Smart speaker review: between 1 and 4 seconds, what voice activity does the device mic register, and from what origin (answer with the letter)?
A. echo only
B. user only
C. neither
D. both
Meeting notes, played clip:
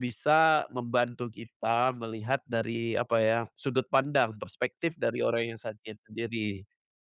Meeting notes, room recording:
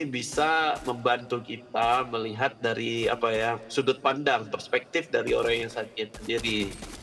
A